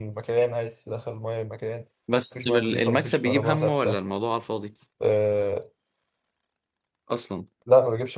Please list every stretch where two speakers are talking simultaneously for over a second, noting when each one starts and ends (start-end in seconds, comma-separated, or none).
2.4-4.0